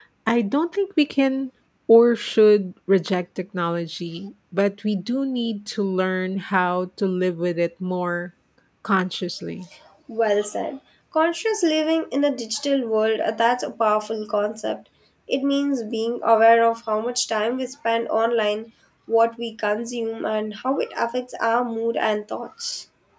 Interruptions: none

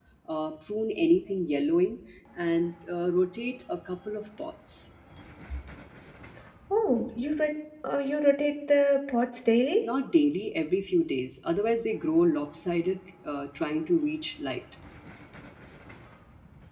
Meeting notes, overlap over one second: none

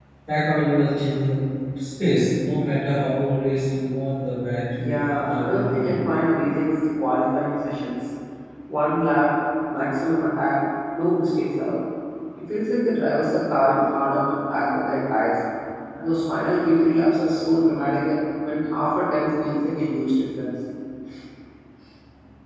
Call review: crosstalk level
present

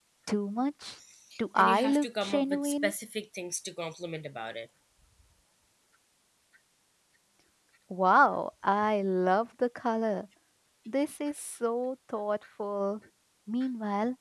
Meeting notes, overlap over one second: present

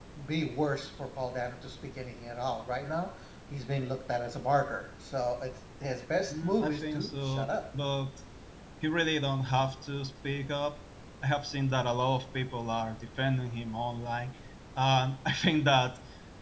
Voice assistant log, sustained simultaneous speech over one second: present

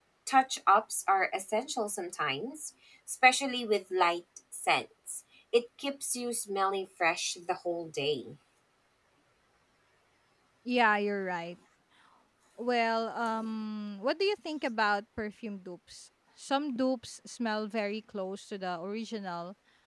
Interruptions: none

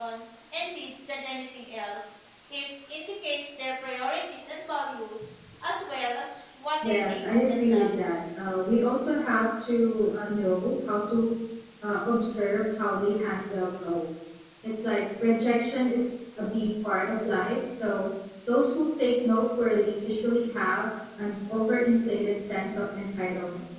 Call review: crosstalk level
present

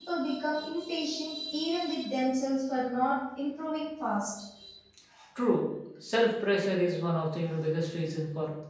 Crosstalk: none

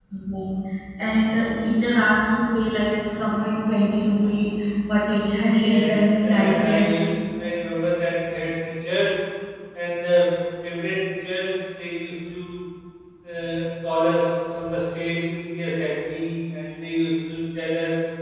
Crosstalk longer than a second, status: present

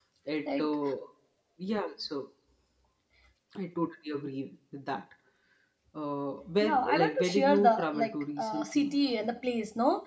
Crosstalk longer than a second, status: present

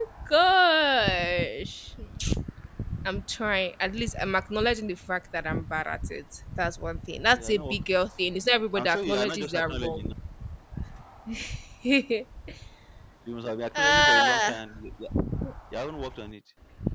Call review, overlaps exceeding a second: present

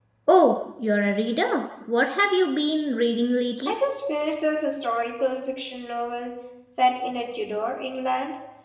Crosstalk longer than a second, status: none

